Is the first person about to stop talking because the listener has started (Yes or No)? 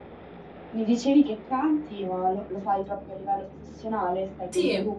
Yes